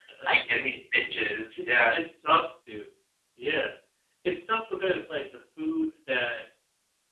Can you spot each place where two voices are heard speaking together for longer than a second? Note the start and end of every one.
none

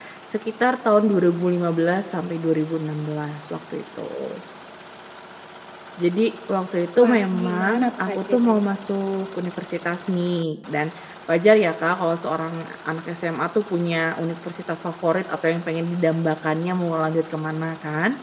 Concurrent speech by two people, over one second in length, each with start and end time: 7.0-8.7

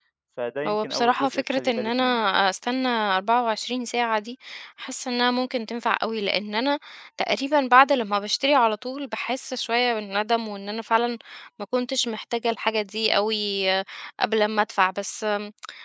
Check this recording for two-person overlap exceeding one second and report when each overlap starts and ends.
0.7-2.0

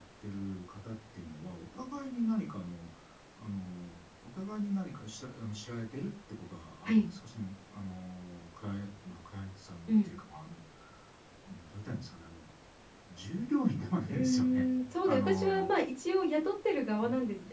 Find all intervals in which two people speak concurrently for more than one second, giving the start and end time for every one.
14.1-15.7

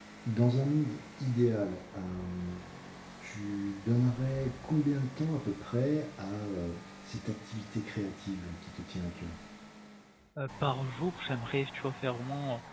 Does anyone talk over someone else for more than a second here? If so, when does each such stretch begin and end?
none

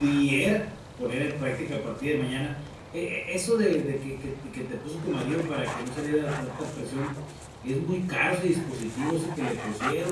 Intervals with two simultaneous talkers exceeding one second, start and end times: none

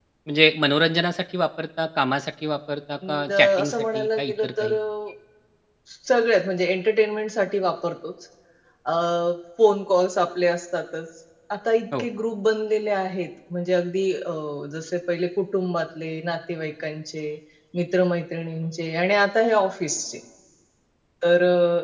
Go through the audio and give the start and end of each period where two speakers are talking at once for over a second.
3.1-4.7

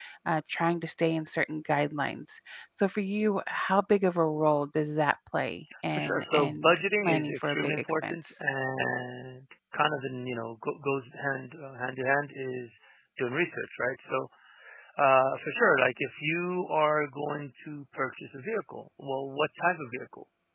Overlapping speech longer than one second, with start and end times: 5.9-8.3

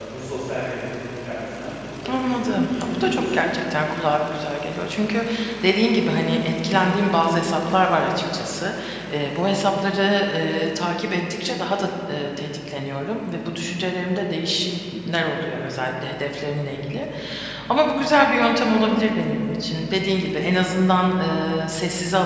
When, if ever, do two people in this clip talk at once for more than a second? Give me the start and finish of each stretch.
2.1-3.4

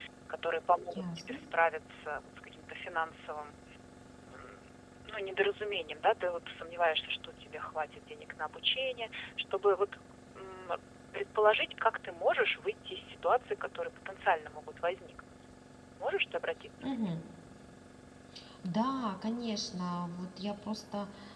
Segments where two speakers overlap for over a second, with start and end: none

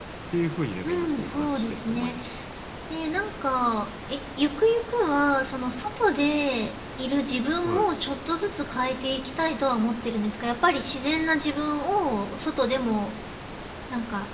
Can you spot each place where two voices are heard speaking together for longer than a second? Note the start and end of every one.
0.8-2.1

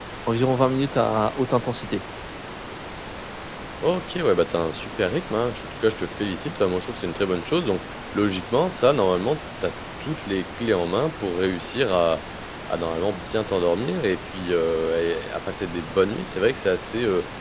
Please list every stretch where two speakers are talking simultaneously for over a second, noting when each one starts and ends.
none

